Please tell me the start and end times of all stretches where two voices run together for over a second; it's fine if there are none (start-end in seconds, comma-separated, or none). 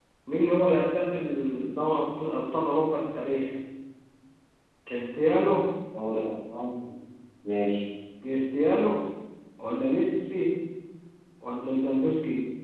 none